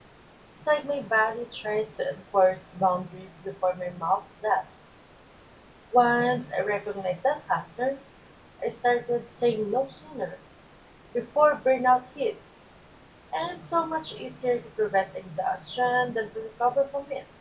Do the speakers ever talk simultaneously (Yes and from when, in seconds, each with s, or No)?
No